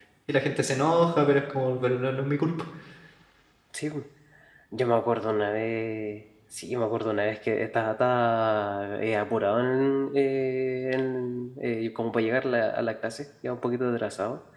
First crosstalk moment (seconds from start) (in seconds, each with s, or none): none